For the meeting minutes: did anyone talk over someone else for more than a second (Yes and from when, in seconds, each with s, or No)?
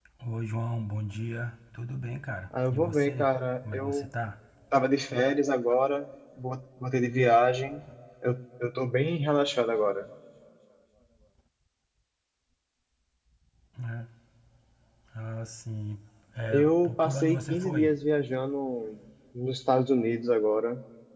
Yes, from 2.5 s